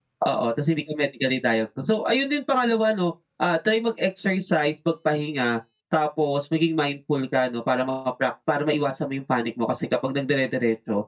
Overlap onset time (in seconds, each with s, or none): none